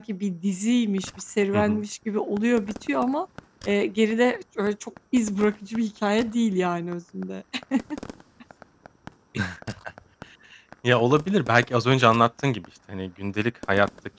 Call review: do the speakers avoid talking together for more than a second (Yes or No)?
Yes